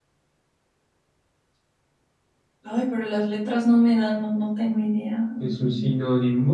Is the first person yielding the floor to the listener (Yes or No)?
Yes